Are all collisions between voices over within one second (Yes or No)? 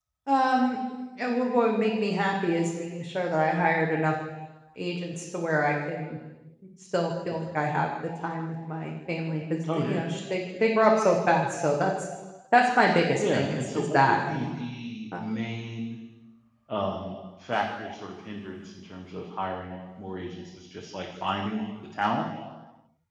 No